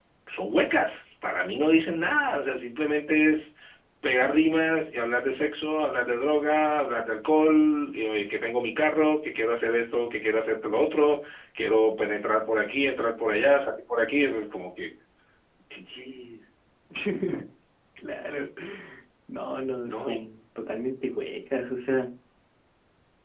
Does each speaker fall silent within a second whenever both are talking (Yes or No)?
Yes